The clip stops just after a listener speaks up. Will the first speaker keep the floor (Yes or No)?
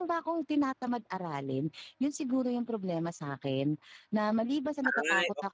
Yes